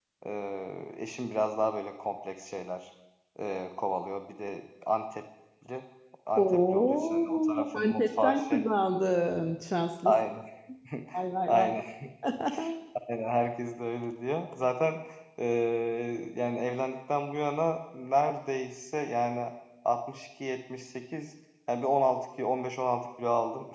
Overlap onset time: 6.3 s

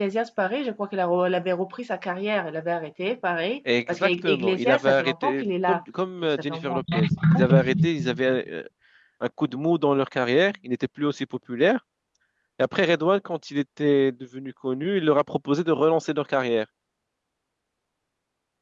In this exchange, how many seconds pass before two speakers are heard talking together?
3.7 s

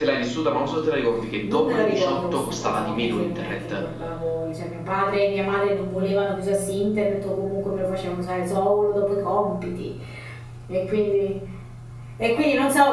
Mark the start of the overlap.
1.4 s

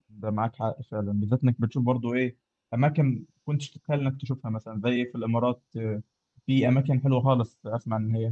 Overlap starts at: none

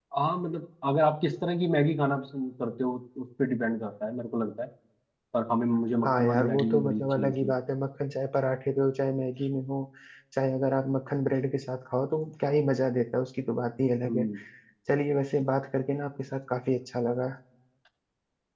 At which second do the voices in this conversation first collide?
6.0 s

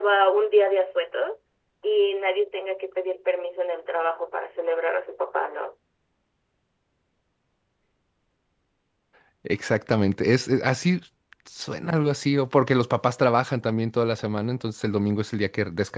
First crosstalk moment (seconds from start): none

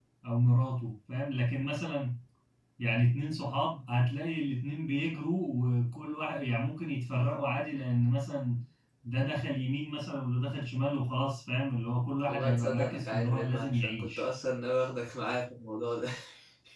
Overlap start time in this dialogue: 12.3 s

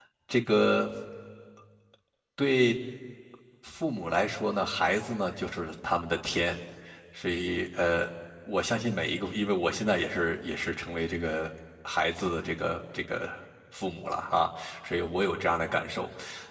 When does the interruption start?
none

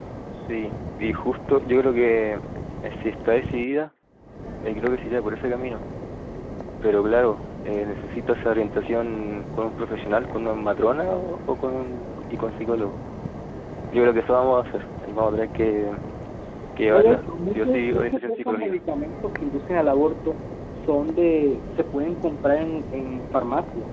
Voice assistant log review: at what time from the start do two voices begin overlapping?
16.9 s

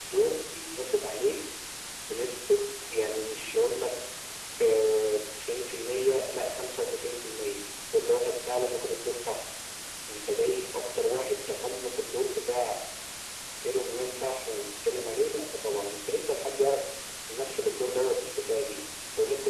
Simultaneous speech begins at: none

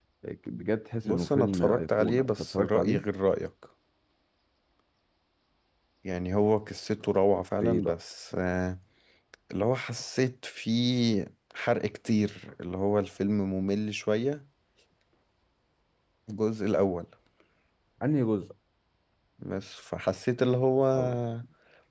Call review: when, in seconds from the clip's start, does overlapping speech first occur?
1.0 s

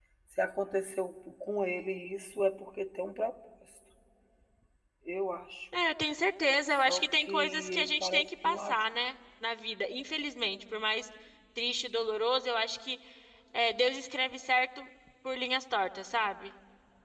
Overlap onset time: 6.7 s

